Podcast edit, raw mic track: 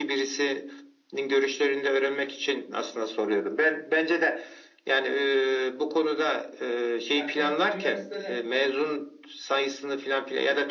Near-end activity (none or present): present